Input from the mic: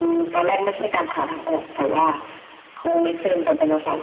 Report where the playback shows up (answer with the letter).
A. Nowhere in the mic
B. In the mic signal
B